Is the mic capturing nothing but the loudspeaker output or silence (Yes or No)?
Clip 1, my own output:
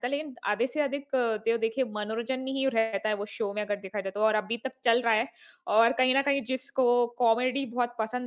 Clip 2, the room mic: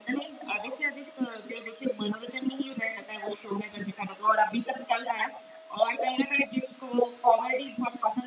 Yes